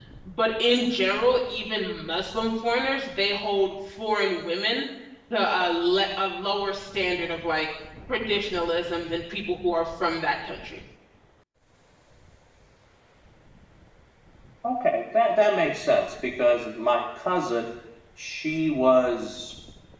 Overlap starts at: none

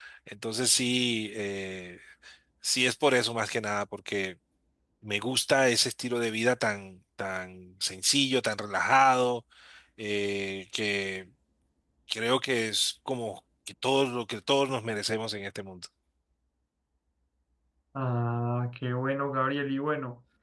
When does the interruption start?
none

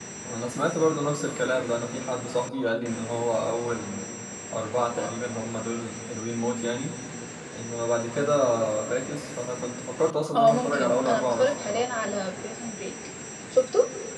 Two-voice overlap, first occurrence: 10.3 s

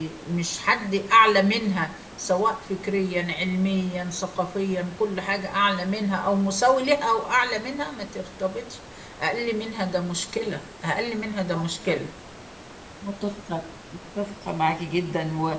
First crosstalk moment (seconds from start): none

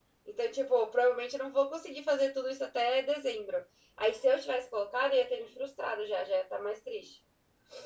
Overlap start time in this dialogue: none

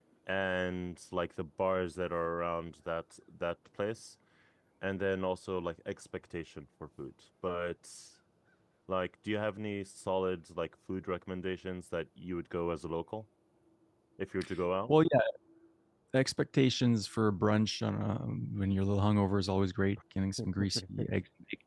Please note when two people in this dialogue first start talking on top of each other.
none

